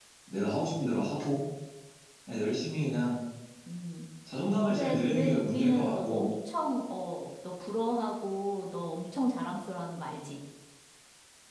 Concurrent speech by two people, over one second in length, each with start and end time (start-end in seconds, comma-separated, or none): 4.7-6.3